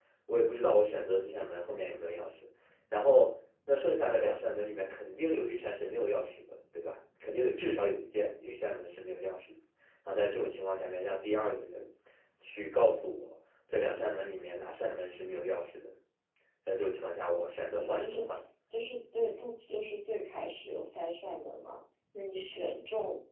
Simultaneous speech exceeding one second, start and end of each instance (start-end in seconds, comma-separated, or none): none